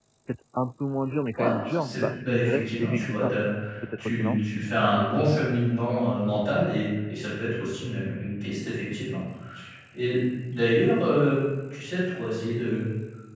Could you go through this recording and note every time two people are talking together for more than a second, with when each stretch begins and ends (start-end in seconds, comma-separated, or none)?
1.4-3.3